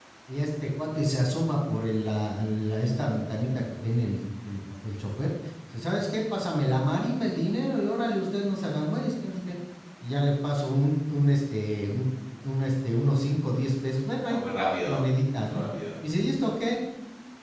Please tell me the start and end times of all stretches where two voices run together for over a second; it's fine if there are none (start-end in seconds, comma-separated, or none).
none